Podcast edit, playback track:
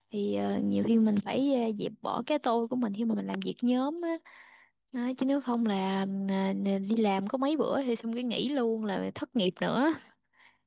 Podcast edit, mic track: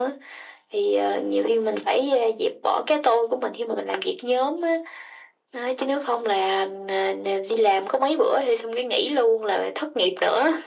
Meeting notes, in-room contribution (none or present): none